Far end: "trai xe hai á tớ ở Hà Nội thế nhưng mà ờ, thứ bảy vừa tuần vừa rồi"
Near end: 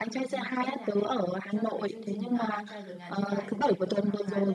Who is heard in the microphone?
both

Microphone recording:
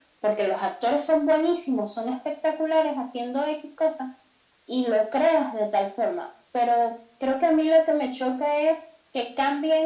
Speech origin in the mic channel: echo only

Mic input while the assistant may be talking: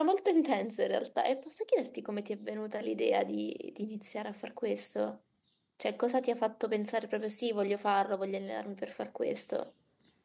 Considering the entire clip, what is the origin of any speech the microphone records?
user only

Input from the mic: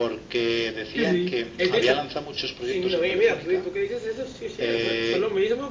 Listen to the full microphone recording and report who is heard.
both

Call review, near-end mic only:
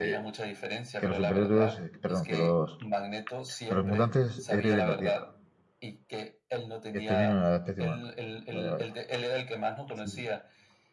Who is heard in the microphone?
both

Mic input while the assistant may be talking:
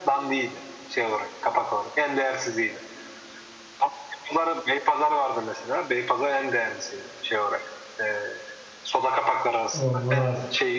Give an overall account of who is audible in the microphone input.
both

